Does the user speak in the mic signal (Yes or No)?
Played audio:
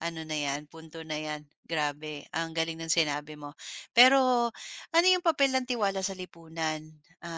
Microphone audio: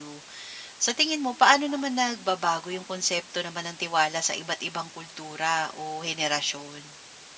Yes